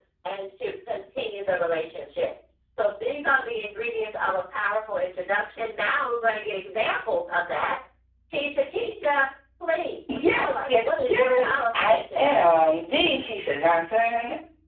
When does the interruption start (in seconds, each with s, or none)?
10.1 s